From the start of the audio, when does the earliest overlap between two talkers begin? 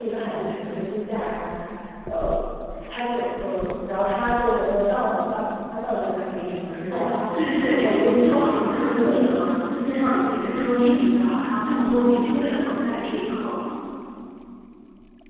7 s

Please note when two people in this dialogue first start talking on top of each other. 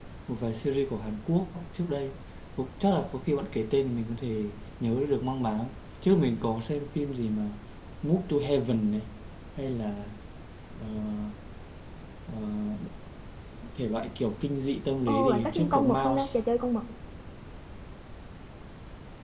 15 s

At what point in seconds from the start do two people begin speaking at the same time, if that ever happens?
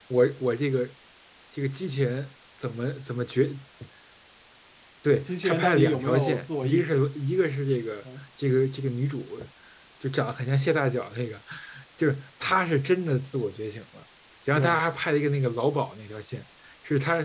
5 s

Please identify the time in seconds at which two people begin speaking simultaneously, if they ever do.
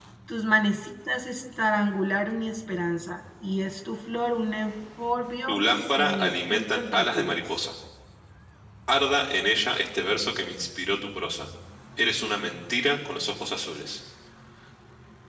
5 s

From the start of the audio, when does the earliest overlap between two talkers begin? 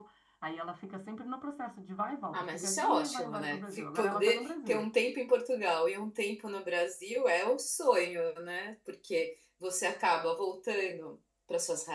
2 s

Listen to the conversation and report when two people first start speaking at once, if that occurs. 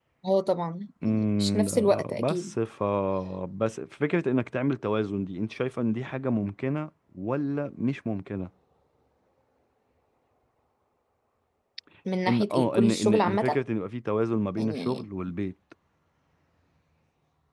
1 s

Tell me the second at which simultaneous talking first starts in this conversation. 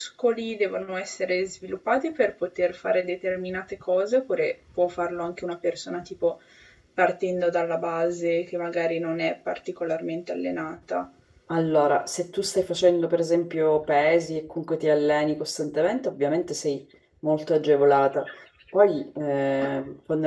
none

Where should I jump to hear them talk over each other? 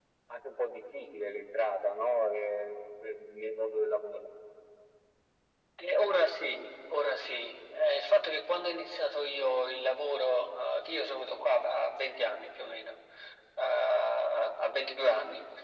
none

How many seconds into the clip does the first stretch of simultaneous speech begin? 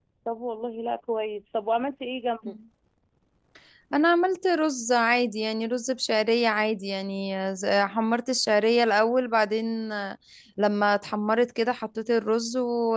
none

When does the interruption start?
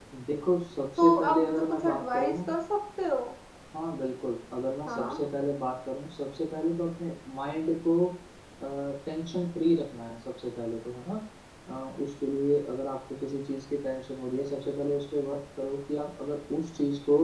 1 s

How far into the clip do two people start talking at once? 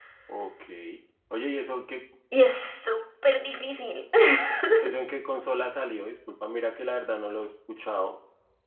none

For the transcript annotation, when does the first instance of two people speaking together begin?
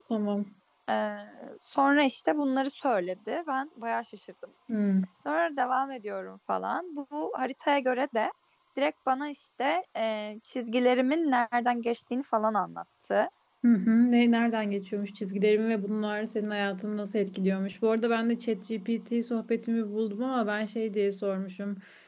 none

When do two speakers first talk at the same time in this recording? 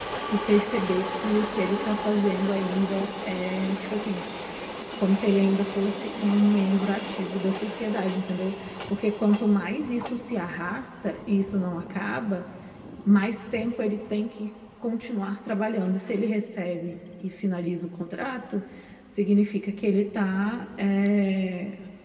none

